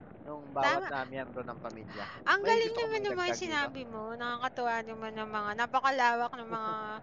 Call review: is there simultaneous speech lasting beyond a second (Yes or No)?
Yes